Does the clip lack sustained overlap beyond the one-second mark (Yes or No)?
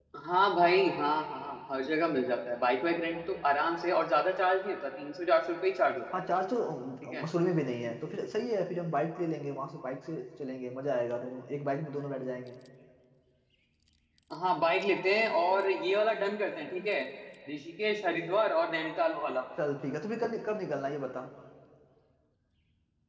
Yes